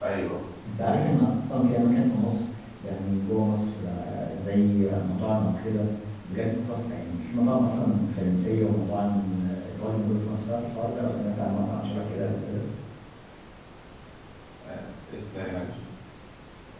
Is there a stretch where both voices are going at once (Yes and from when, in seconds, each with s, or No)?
No